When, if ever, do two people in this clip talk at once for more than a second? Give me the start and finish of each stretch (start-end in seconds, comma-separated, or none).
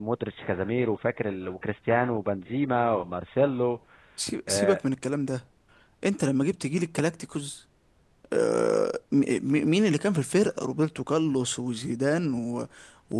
none